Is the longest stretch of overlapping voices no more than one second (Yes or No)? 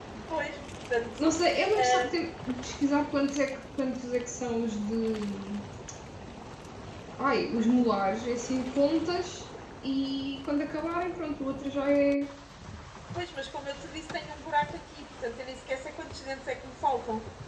Yes